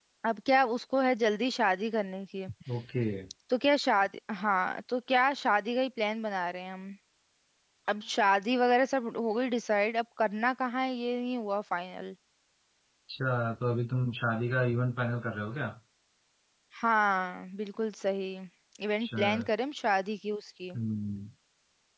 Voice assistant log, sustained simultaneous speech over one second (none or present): none